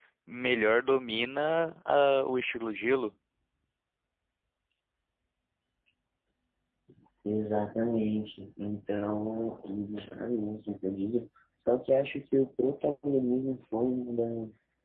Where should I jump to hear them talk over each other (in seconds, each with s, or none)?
none